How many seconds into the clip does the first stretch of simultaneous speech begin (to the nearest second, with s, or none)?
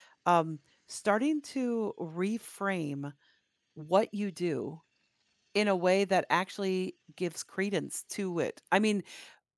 none